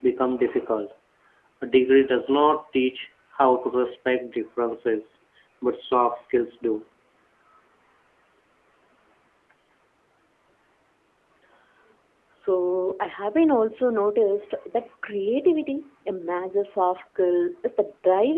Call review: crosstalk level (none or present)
none